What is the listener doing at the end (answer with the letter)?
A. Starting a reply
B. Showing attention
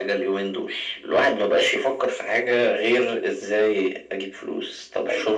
B